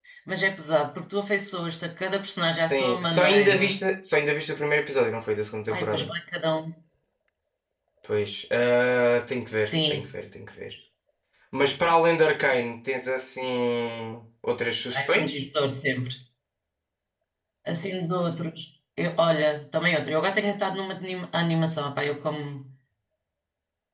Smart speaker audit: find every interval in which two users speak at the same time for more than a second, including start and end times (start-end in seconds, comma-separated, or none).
2.4-3.8